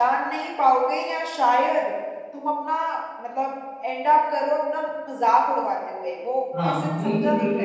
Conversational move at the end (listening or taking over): taking over